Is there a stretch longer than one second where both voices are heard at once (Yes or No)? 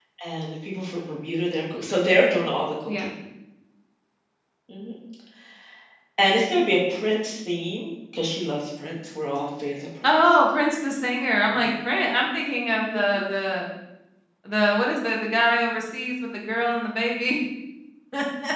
No